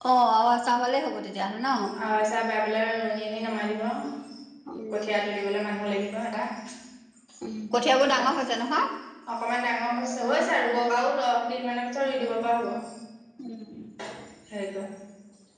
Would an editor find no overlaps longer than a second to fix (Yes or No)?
Yes